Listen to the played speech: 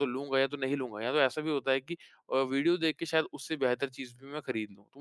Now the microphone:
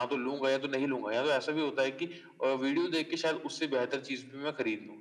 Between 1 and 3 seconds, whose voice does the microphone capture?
echo only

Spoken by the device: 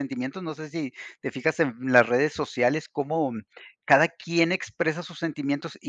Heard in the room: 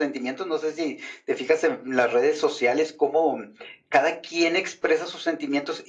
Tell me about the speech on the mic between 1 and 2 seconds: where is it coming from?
echo only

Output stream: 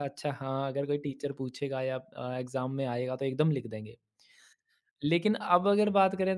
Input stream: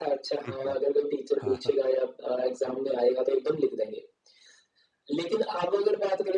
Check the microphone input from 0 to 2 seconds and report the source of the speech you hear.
both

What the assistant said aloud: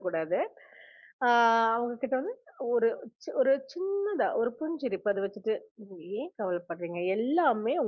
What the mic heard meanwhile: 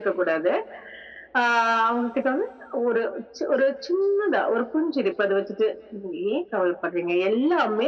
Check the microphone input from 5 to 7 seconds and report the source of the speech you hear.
echo only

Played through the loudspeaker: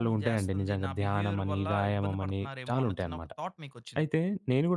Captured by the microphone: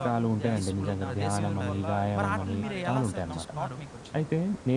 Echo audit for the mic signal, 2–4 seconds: both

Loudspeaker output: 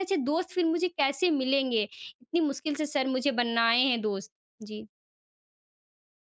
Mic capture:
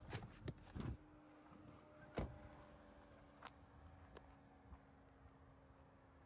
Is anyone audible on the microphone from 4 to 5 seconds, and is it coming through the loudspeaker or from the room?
neither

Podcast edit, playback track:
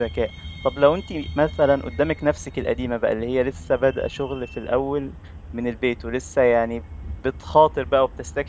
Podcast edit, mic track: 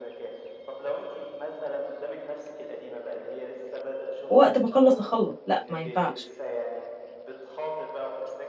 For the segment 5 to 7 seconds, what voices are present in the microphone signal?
both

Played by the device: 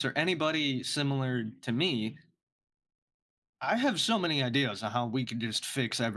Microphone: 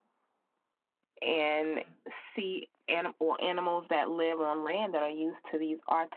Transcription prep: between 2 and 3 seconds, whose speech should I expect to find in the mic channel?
user only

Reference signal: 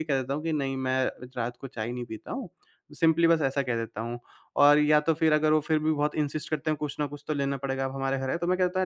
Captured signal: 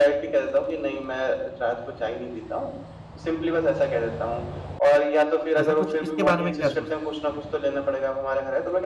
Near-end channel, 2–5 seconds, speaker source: echo only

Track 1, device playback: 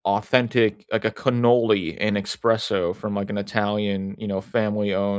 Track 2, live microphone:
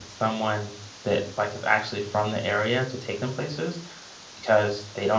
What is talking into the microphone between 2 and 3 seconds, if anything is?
user only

